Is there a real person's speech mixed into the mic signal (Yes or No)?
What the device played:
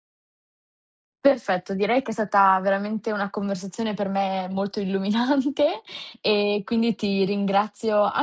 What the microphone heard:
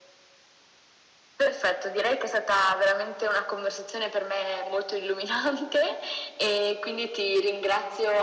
No